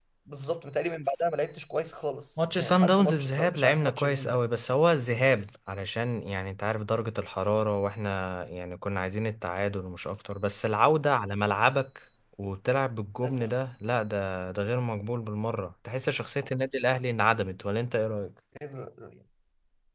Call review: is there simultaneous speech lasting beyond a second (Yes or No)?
Yes